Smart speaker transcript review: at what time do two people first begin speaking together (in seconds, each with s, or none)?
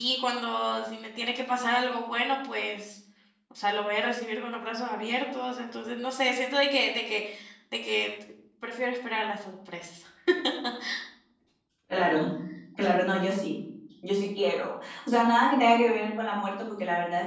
none